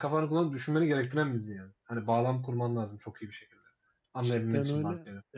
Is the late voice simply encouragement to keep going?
No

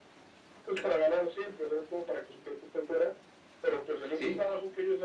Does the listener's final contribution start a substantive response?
No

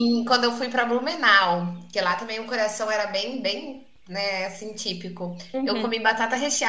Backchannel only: Yes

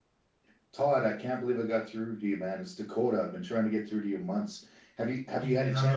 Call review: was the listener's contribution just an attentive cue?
No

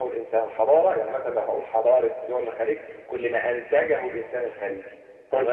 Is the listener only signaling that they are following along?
Yes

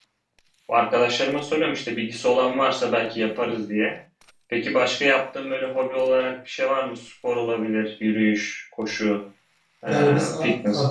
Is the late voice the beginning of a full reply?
Yes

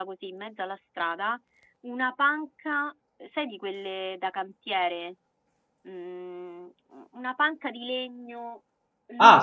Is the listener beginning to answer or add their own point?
Yes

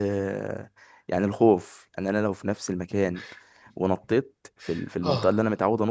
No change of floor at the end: Yes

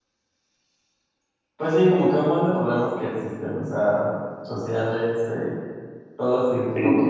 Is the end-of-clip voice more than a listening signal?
Yes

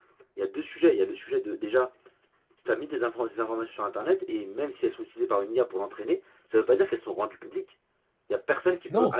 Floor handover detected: No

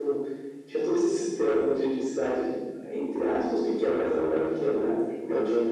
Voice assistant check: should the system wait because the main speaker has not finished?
No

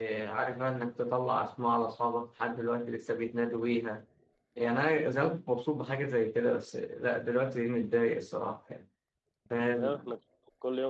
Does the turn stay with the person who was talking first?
No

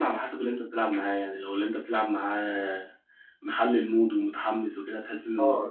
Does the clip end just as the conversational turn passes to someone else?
Yes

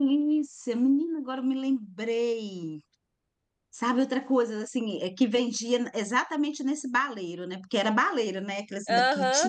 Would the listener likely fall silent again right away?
No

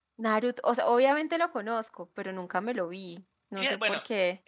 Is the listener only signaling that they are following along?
No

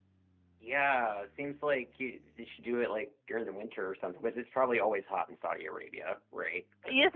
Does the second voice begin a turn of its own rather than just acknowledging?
Yes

